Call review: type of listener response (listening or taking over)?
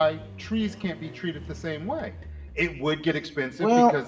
listening